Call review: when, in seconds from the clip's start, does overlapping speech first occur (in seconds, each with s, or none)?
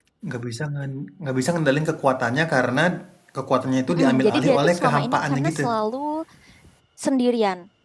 3.9 s